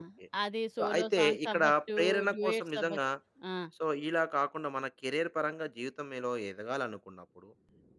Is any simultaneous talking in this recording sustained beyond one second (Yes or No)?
Yes